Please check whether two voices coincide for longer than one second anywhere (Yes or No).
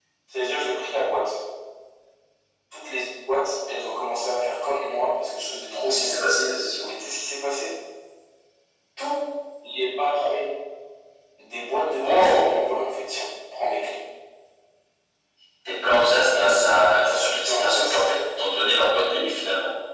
Yes